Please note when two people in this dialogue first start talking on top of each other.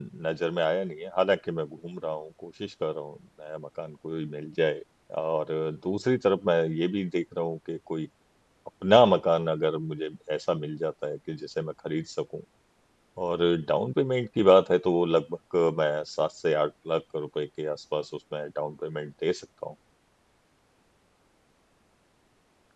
none

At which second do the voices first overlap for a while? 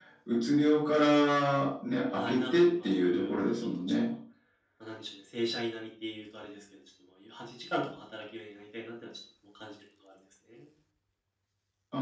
2.1 s

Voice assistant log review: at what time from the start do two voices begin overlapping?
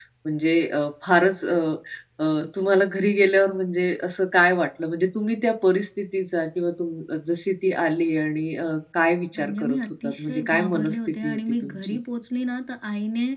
9.3 s

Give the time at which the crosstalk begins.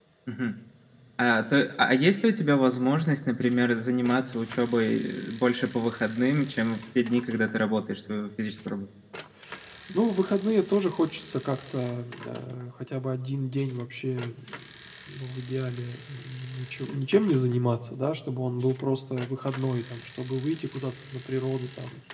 none

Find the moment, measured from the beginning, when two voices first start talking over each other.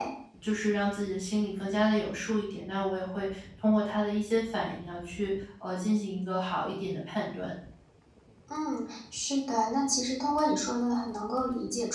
none

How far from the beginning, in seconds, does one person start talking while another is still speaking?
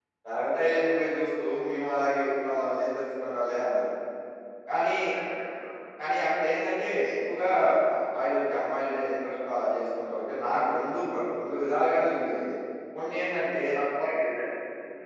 none

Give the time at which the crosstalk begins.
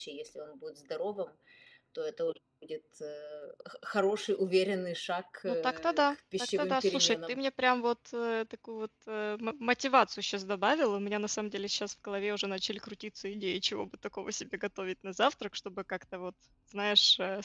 5.5 s

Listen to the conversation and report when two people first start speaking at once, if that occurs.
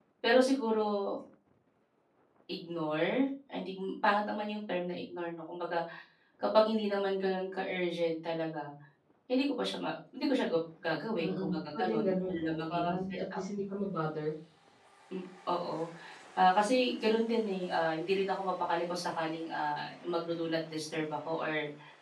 11.2 s

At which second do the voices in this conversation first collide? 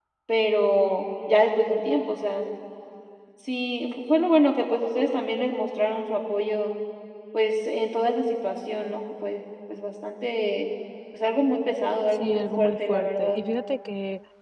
12.1 s

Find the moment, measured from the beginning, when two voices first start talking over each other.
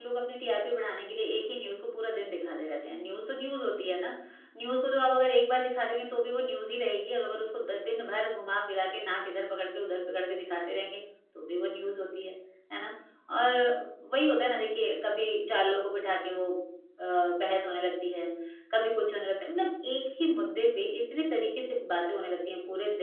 none

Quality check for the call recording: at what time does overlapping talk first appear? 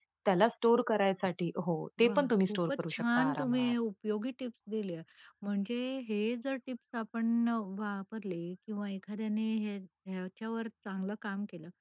2.0 s

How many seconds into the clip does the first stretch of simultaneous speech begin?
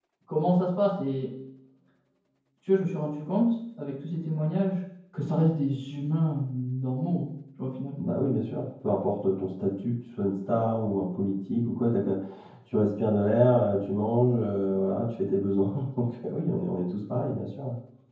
none

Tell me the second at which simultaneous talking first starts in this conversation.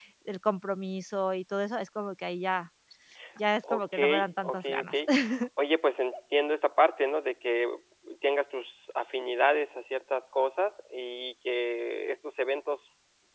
3.7 s

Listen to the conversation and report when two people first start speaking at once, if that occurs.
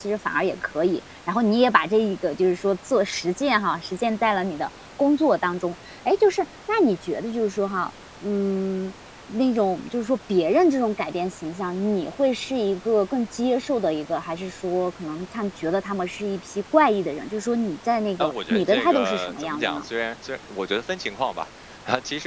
18.2 s

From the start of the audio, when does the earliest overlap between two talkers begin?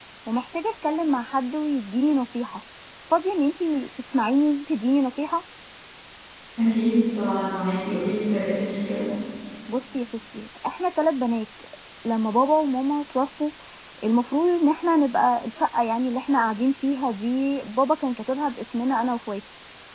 none

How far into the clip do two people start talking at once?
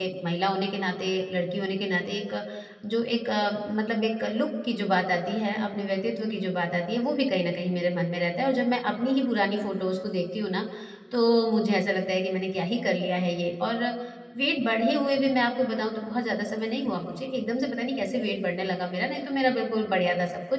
none

